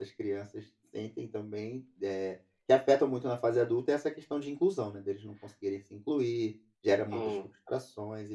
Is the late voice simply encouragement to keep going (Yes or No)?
Yes